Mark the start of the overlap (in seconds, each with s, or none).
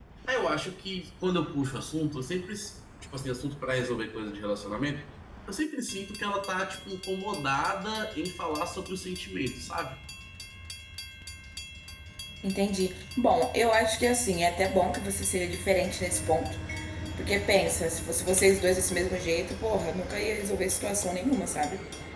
none